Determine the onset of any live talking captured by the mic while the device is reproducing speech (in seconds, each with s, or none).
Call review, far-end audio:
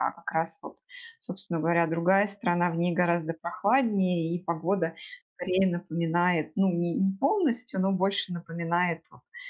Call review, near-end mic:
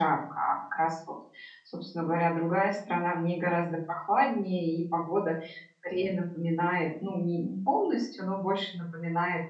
none